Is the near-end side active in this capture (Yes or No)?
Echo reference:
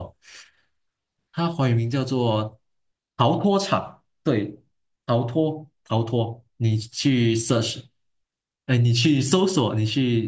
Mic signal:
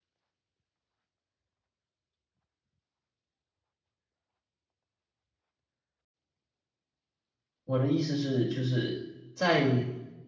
Yes